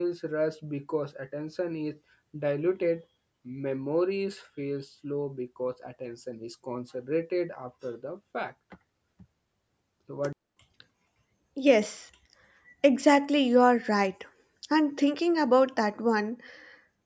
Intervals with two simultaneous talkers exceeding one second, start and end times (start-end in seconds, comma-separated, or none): none